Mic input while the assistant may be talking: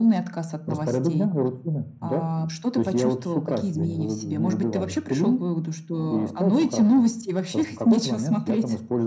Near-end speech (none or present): none